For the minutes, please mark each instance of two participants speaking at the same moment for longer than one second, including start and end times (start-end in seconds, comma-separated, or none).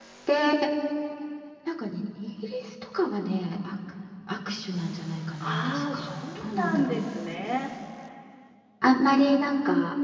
5.4-7.1